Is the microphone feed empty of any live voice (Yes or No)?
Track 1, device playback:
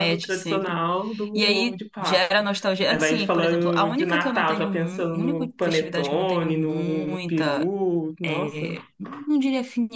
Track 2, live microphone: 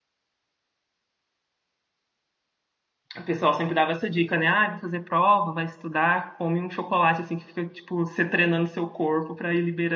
No